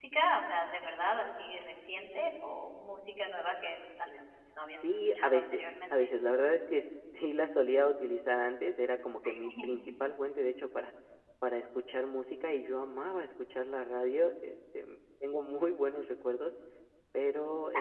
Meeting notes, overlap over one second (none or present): present